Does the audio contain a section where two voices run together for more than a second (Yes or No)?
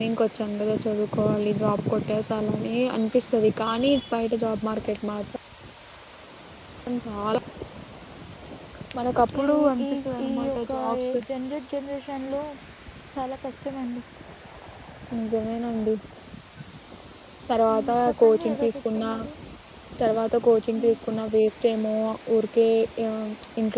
Yes